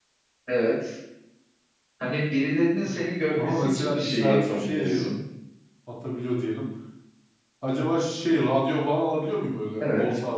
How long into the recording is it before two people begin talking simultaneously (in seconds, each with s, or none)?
3.3 s